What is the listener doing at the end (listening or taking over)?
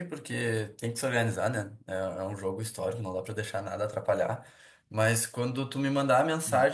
listening